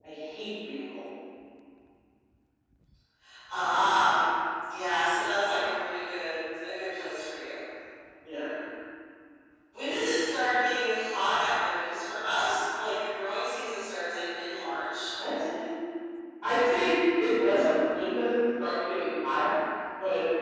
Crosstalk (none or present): none